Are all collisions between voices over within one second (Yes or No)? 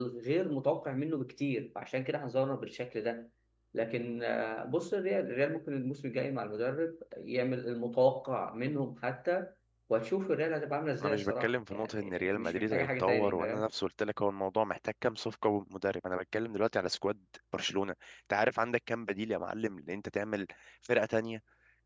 No